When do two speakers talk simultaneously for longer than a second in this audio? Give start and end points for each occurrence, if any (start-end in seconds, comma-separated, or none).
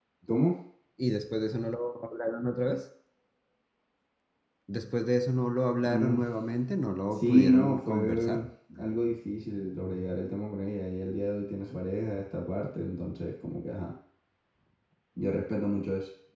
7.1-8.5